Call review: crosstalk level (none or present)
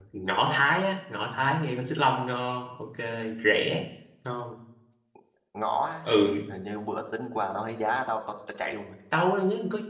none